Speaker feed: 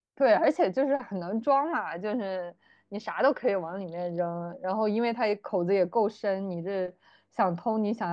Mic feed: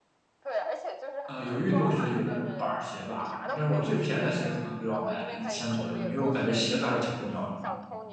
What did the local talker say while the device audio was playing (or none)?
呃，有运动鞋，有那种板儿鞋吧，但是我最便宜的鞋可能都要买个一千左右的，因为我感觉鞋子还是挺重要的